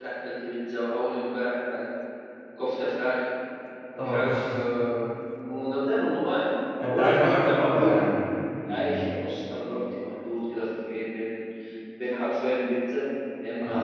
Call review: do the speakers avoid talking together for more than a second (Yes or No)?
No